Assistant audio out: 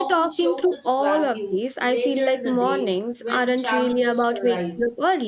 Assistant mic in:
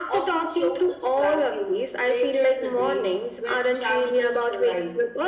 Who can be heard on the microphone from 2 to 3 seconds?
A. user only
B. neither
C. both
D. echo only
D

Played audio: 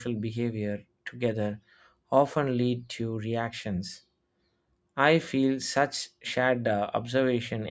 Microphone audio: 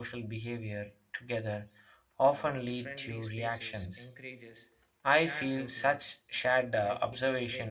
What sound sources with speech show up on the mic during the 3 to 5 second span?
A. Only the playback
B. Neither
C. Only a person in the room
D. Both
D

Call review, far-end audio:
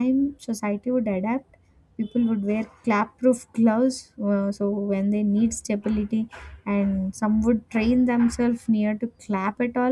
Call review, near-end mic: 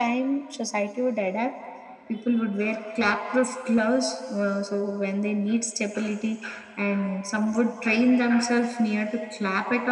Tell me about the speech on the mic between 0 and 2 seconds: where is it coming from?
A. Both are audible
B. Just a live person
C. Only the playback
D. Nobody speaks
C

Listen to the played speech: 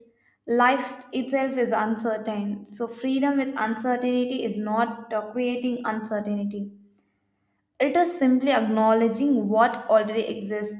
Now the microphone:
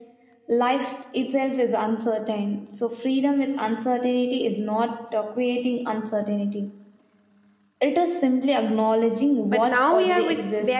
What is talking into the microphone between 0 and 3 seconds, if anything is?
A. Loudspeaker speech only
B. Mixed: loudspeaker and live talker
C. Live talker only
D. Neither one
A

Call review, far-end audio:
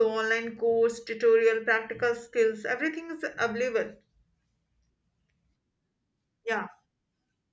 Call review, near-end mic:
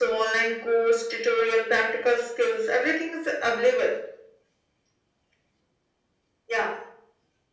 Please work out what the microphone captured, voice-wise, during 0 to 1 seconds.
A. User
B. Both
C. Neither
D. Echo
D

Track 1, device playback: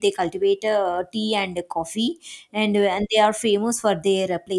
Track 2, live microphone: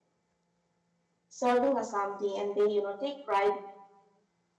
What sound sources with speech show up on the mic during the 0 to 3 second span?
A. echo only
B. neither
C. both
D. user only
D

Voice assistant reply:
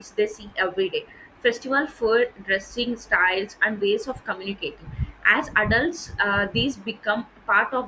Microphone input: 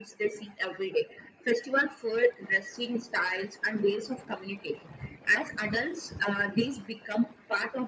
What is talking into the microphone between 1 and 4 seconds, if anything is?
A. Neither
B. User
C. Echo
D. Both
C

